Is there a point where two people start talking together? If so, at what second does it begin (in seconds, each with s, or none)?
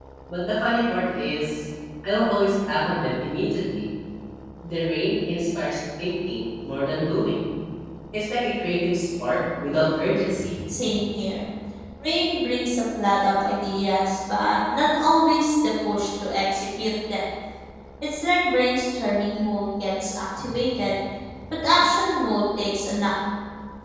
none